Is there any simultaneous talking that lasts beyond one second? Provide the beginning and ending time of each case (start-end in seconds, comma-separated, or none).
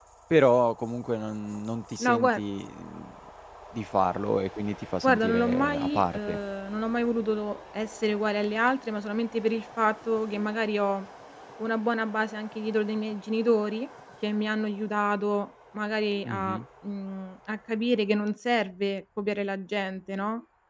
5.0-6.4